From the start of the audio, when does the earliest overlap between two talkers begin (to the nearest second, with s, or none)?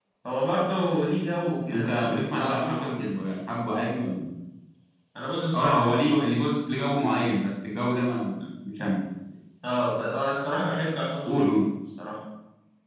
2 s